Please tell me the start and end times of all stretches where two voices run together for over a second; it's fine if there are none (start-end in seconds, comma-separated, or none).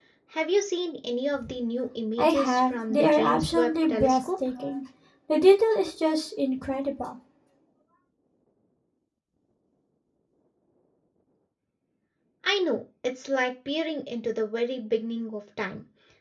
2.2-4.3